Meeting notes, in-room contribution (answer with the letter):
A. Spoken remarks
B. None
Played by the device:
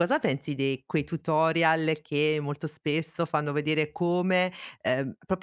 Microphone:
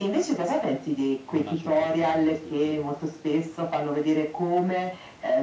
A